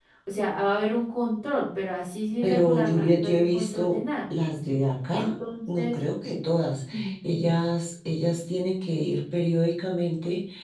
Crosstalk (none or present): present